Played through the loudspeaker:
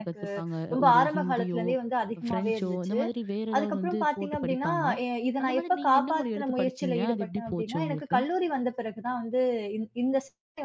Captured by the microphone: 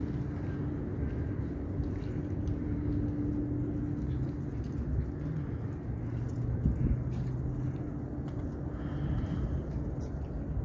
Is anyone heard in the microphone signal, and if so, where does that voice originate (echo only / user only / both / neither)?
neither